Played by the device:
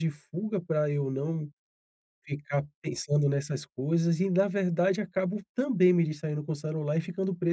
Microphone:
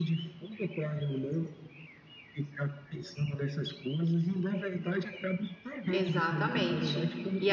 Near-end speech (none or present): present